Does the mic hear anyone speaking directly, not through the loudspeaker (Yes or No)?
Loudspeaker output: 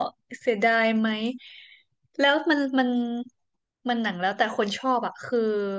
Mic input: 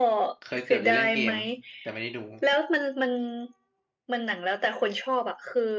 Yes